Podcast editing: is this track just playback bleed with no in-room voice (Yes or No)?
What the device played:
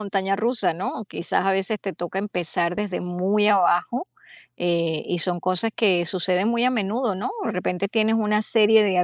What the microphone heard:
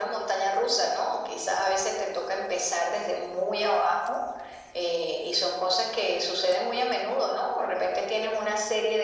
Yes